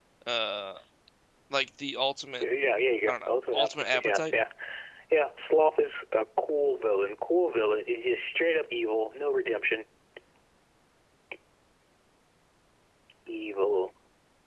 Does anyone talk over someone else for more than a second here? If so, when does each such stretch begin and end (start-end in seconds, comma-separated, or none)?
3.1-4.3